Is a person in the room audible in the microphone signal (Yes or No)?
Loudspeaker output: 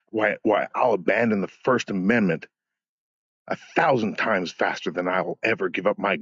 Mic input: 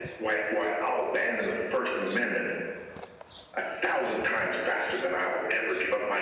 No